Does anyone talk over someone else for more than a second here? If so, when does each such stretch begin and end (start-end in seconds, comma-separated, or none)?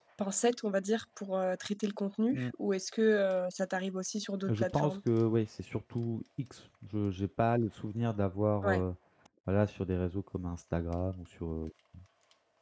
none